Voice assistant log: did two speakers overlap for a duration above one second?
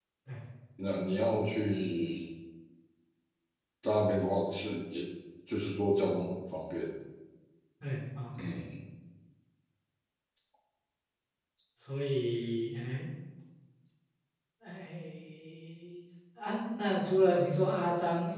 No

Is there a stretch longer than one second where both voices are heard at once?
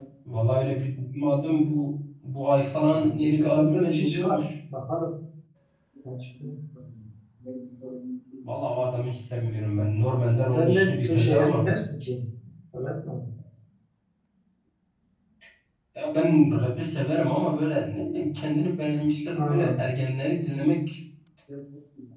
Yes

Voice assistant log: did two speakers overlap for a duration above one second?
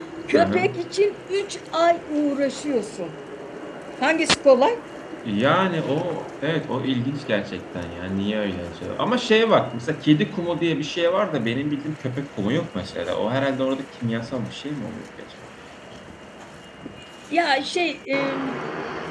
No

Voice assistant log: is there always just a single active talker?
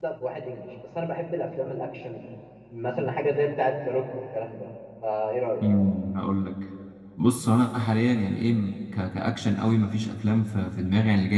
Yes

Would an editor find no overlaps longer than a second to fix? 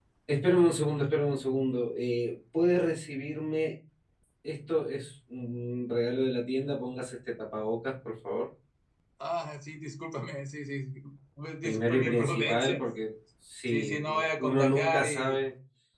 No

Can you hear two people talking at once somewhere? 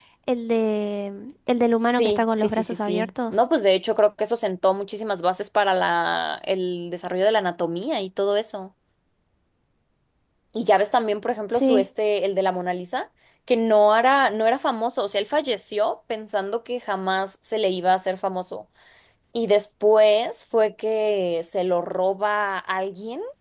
Yes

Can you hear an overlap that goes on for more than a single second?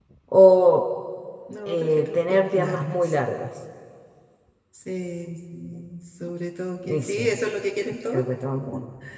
Yes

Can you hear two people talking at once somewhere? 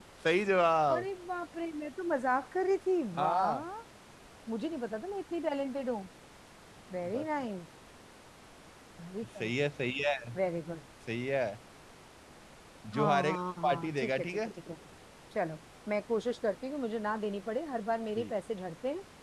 Yes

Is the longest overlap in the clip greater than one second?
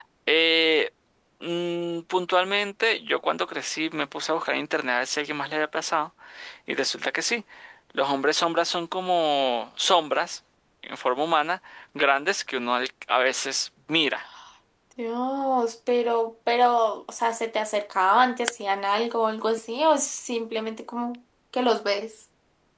No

